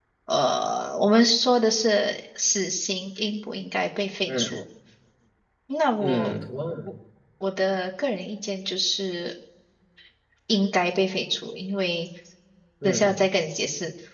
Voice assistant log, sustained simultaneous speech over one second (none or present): none